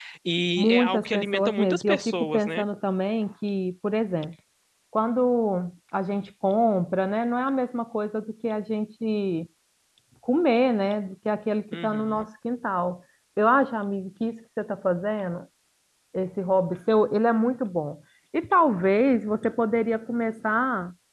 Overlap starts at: 0.6 s

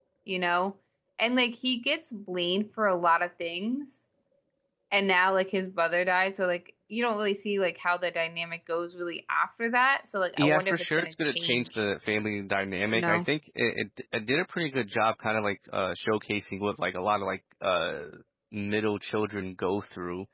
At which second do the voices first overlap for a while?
10.4 s

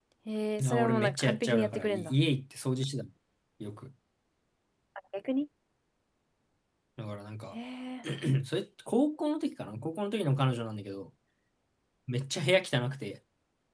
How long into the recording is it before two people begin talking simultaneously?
0.7 s

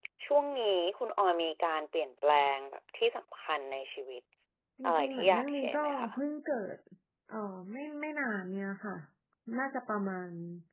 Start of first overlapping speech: 4.8 s

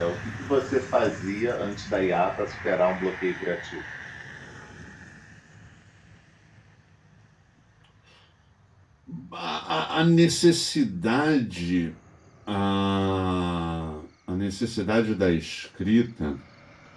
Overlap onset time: none

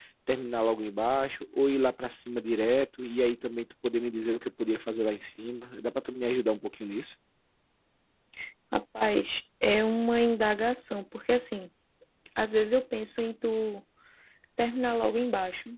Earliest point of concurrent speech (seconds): none

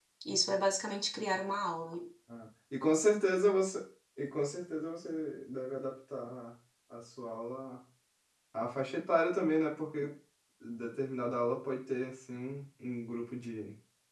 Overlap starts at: none

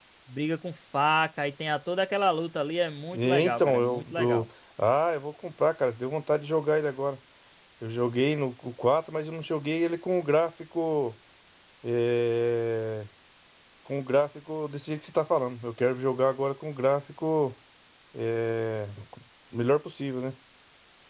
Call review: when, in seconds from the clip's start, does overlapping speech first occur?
3.1 s

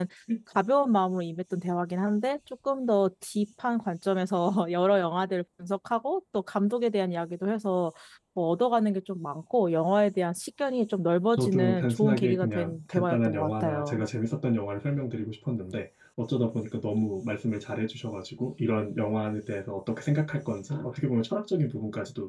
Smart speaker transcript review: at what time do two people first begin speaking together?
11.3 s

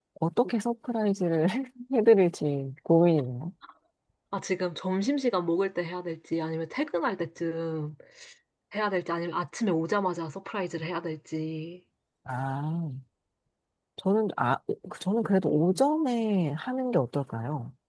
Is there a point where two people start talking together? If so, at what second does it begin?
none

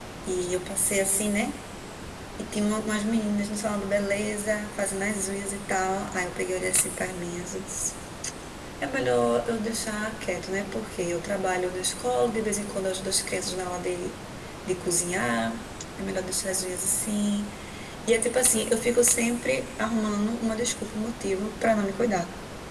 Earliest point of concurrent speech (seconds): none

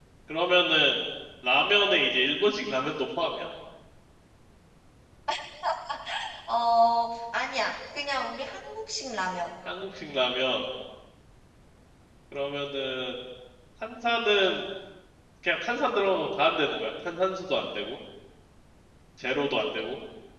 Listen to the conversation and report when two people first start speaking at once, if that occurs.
none

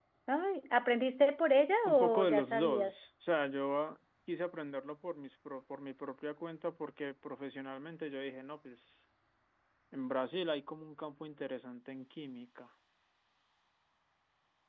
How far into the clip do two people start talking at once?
1.8 s

